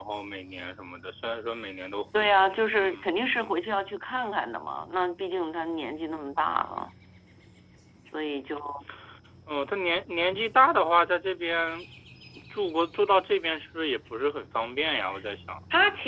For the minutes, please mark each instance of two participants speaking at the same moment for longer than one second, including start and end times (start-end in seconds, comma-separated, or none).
2.1-3.6